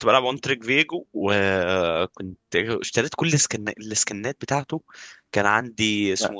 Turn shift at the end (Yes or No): No